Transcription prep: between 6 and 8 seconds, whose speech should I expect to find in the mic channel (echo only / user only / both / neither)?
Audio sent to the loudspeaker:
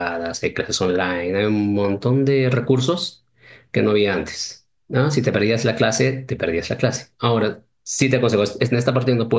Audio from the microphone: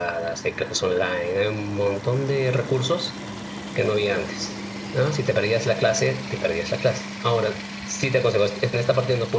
echo only